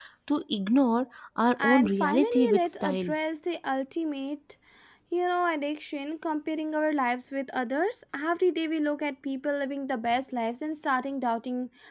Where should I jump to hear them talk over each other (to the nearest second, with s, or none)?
2 s